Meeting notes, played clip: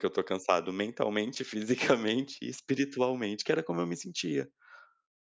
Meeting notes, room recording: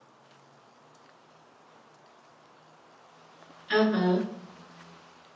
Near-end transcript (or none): Aham.